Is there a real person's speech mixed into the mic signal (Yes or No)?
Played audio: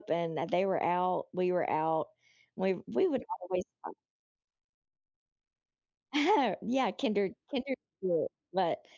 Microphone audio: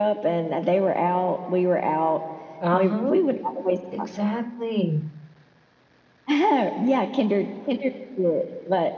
Yes